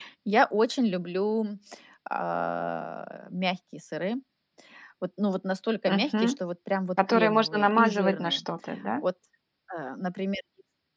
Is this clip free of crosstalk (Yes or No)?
No